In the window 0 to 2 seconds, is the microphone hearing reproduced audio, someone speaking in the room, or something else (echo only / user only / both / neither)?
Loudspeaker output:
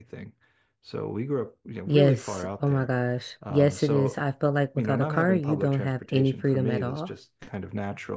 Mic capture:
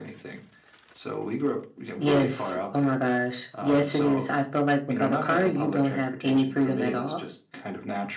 echo only